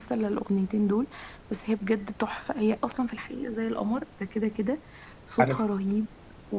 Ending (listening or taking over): listening